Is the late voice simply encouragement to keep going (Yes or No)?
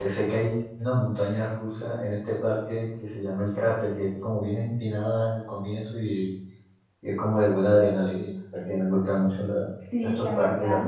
No